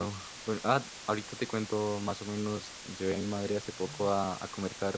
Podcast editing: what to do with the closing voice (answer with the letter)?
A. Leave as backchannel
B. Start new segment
A